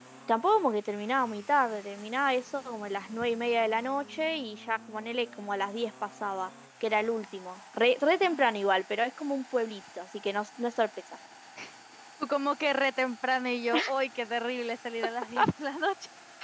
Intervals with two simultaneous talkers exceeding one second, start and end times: none

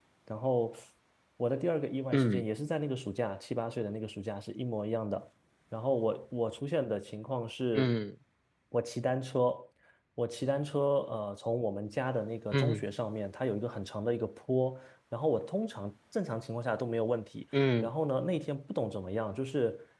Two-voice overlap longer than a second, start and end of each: none

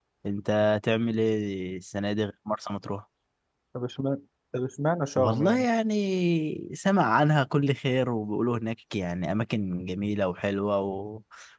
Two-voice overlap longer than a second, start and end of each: none

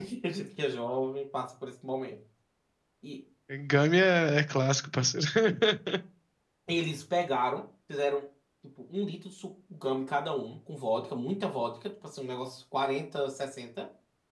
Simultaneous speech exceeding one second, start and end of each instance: none

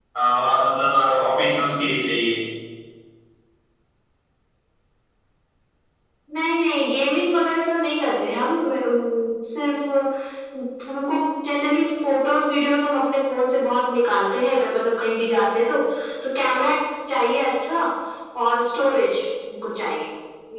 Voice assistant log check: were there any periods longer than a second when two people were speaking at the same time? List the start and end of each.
none

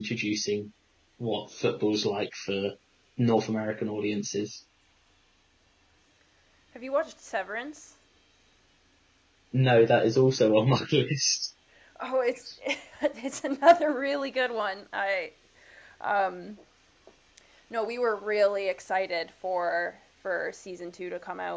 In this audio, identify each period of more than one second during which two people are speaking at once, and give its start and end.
none

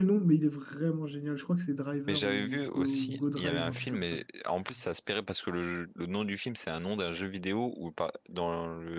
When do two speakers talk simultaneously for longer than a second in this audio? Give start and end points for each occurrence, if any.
2.1-4.0

